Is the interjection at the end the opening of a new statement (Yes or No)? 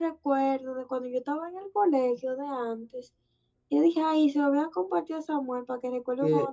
Yes